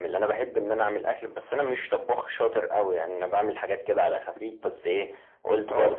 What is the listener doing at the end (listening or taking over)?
listening